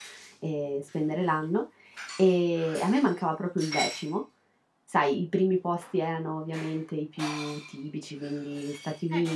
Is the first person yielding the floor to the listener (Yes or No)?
Yes